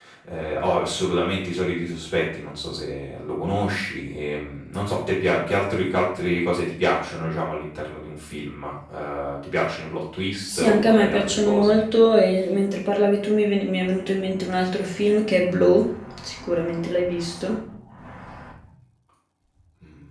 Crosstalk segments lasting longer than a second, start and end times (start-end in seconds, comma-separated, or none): 10.5-11.8